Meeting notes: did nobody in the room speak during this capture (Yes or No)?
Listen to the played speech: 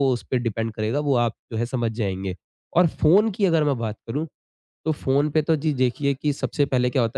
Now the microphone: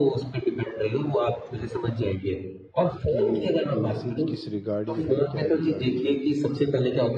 No